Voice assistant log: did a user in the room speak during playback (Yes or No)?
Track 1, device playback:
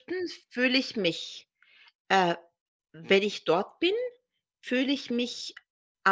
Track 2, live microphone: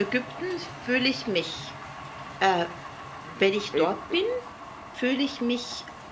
Yes